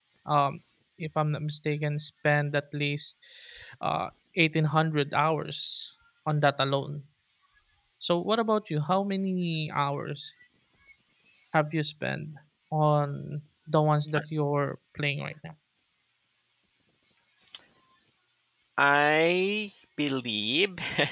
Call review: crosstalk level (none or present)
none